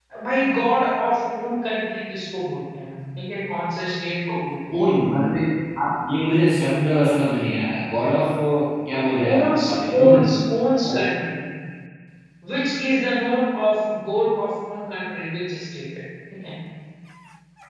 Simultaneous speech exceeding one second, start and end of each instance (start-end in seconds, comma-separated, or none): none